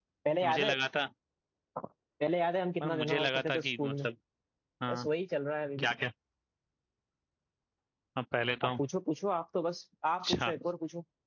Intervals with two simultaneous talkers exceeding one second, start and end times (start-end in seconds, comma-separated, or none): 2.8-4.1